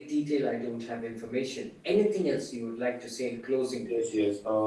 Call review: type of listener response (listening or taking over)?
taking over